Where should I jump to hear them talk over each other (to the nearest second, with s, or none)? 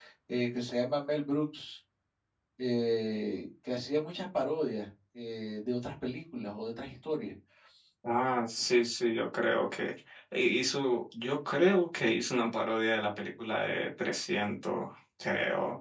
none